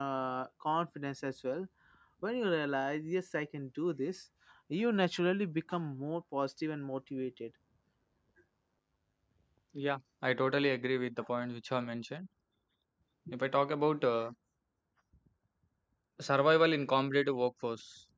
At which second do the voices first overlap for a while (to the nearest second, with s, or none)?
none